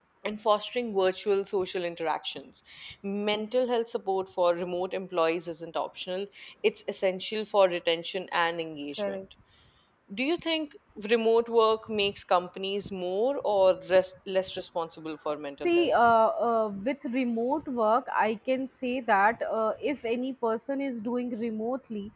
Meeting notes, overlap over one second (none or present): none